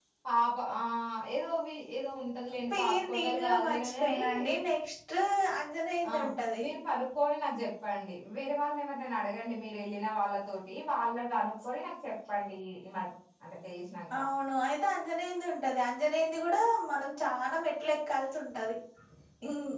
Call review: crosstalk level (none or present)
present